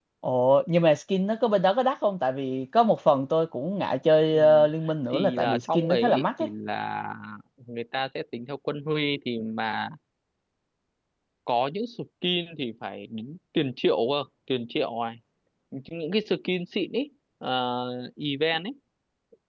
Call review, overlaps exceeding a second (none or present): present